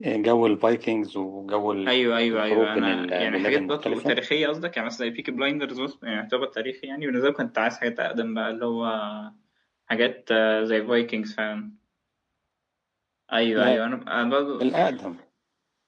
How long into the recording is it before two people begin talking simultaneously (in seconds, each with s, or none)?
2.3 s